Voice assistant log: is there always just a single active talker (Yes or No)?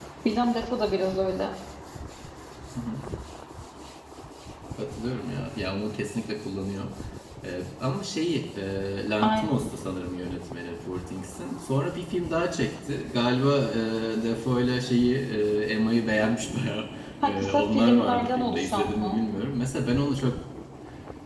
No